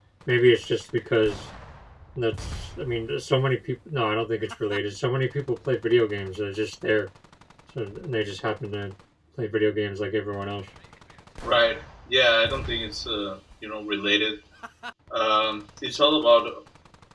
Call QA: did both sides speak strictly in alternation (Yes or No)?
Yes